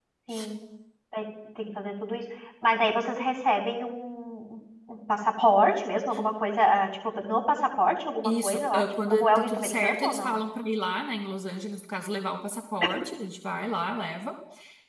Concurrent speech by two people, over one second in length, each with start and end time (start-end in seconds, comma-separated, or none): 8.2-10.3